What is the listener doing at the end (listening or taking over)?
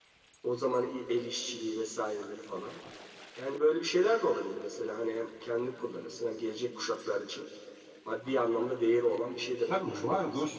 taking over